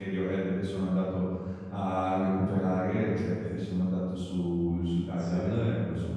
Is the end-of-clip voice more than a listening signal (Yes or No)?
No